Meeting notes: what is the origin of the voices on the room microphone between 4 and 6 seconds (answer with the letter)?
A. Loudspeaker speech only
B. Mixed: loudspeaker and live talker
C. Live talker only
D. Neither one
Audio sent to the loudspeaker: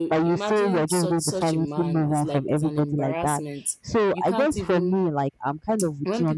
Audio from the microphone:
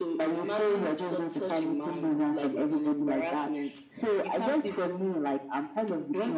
A